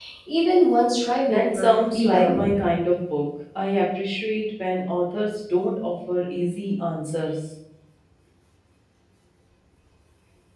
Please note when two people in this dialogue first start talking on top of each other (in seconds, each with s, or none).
1.3 s